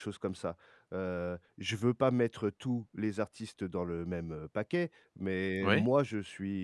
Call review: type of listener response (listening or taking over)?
listening